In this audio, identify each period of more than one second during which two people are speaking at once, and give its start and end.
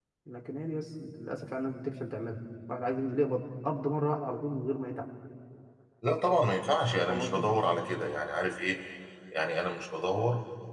none

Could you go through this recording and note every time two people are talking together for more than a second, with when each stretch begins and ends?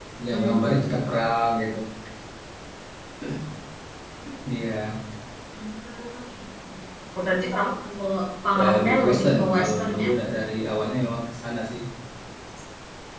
8.6-10.1

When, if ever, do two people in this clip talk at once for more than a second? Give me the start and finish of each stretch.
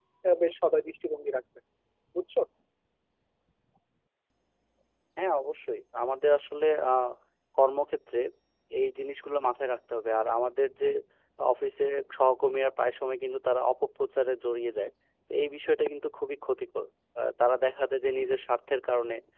none

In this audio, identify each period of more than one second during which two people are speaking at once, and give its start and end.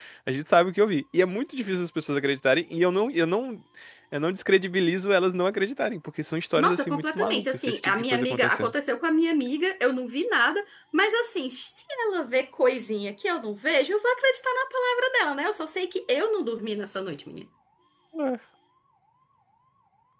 6.6-8.7

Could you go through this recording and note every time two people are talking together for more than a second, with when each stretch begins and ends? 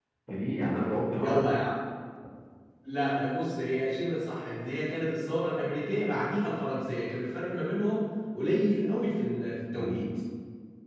none

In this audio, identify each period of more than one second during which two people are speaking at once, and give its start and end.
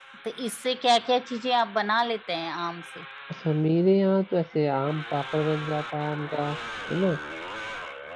none

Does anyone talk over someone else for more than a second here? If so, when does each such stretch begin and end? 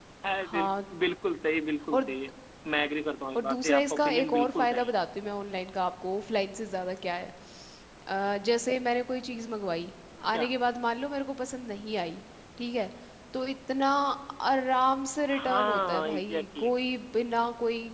3.4-4.9, 15.4-16.8

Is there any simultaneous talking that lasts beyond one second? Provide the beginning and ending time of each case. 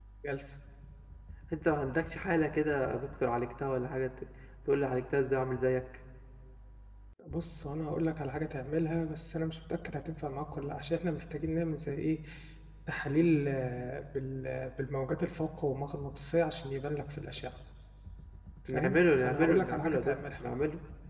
18.7-20.4

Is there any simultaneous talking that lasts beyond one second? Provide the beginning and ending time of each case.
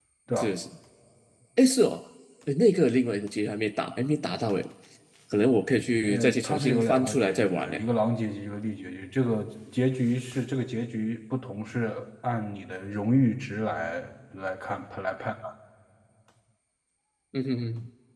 6.1-7.8

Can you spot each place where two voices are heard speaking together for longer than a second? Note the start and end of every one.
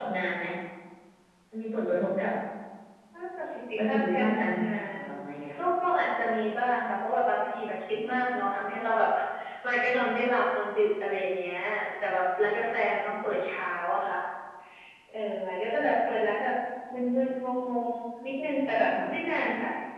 3.8-5.0

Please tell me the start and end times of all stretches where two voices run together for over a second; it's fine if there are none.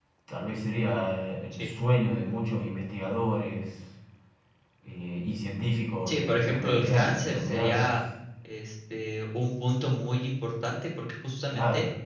6.1-8.0

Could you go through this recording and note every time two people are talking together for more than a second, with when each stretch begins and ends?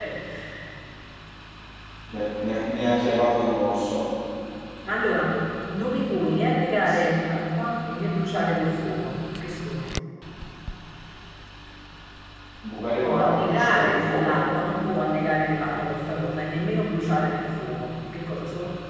13.0-14.4

